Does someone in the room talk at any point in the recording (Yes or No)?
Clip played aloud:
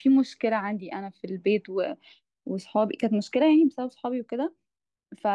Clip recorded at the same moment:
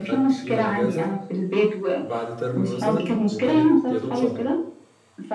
Yes